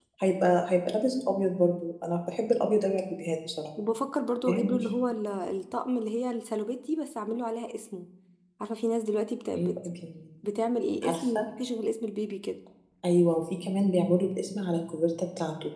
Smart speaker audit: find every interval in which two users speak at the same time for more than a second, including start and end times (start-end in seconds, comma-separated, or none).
none